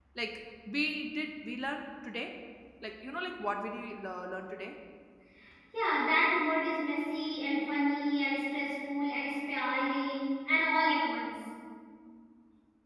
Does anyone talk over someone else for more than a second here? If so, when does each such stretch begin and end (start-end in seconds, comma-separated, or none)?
none